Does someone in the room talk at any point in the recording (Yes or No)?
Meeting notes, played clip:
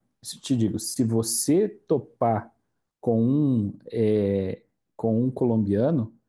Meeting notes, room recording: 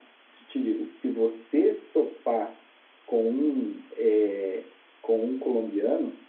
No